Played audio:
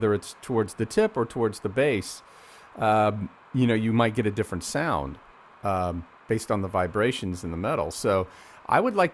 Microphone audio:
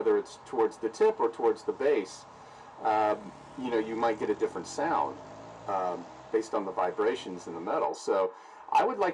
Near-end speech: none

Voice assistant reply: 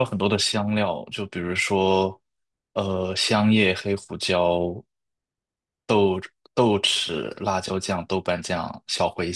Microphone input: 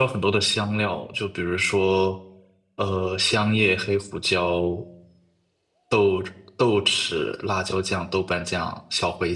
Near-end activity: none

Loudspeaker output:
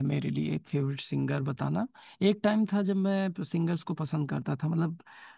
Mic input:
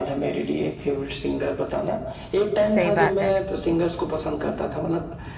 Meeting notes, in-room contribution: present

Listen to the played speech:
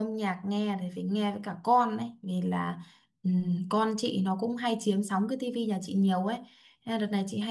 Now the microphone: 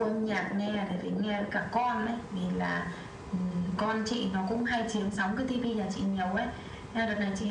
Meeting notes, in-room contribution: none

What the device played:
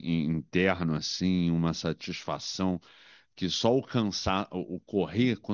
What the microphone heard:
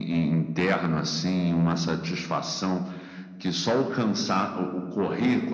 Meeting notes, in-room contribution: none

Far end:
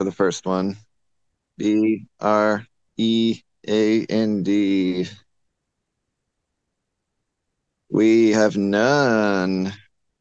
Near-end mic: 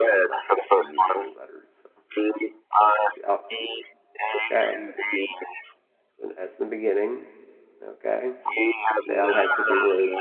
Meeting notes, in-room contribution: present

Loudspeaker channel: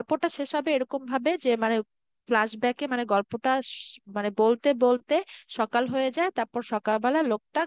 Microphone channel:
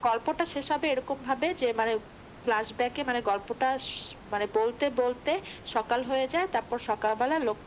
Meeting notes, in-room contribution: none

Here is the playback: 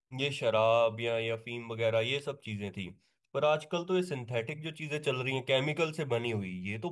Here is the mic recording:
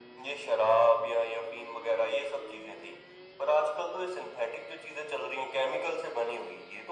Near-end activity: none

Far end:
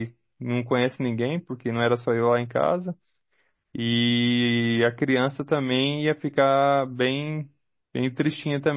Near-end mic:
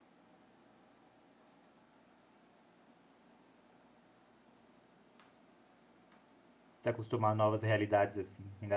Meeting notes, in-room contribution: present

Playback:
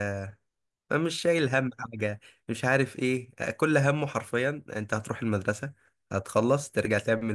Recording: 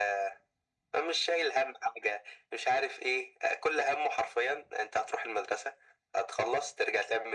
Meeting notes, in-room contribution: none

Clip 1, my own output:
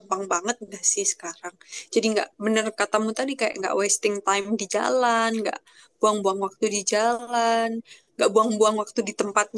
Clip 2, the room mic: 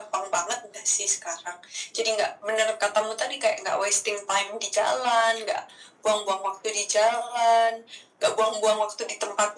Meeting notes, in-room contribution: none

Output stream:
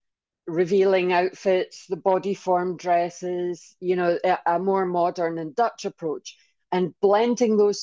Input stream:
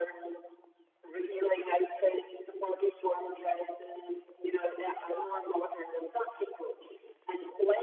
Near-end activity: none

